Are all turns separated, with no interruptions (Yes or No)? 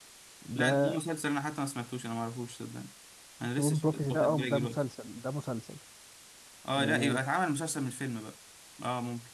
No